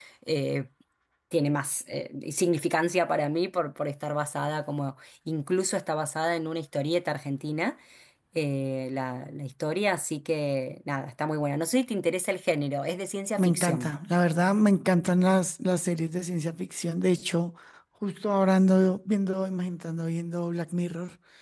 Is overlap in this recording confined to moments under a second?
Yes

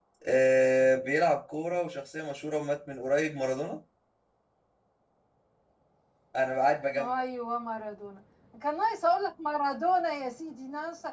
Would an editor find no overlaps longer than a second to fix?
Yes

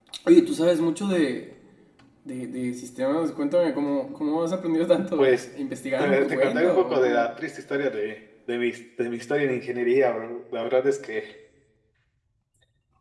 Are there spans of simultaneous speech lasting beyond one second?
Yes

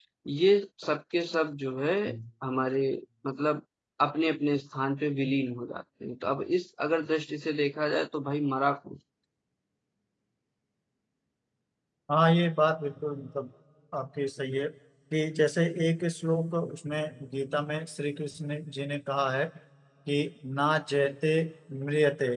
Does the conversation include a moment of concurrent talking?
No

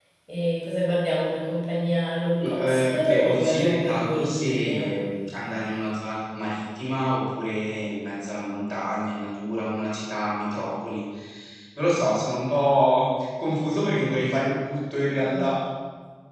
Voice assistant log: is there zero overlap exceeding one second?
No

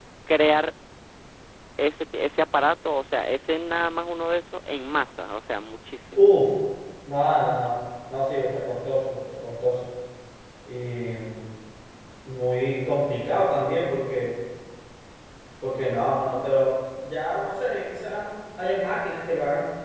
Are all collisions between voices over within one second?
Yes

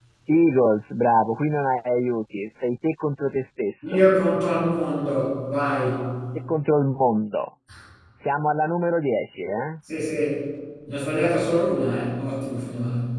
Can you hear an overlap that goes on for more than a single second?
No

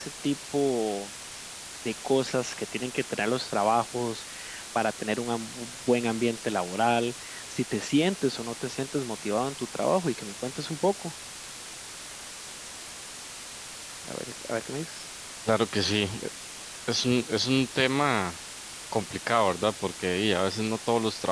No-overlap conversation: Yes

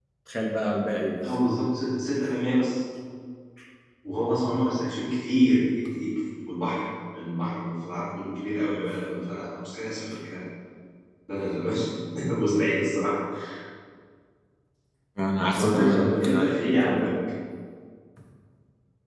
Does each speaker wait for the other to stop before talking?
No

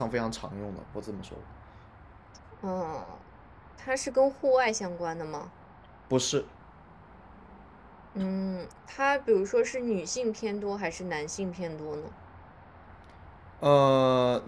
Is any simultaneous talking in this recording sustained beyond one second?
No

